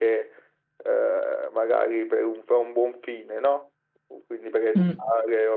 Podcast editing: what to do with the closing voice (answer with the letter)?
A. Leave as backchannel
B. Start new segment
A